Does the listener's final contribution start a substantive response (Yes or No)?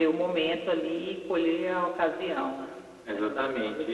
Yes